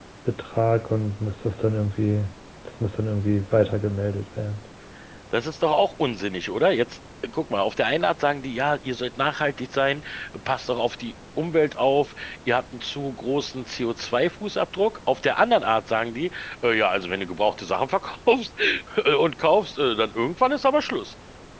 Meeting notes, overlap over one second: none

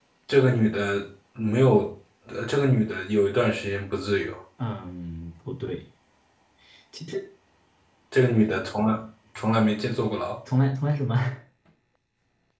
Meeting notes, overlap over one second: none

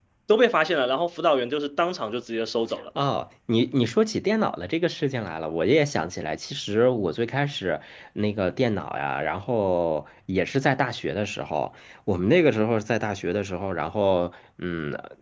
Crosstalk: none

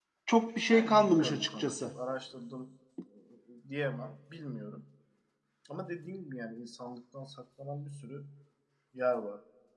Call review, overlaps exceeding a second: present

